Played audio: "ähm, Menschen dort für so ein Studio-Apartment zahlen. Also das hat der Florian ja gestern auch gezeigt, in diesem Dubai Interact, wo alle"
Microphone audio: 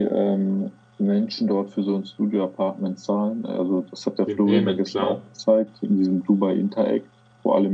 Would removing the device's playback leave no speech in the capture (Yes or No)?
No